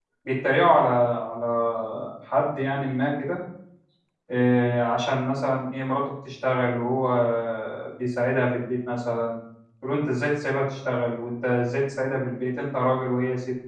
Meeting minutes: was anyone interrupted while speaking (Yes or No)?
No